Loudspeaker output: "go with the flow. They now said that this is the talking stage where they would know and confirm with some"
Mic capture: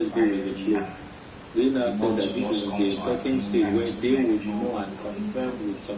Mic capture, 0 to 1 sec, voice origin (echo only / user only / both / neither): both